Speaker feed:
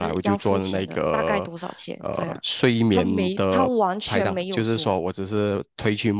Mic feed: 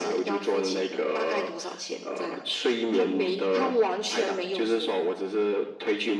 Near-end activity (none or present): none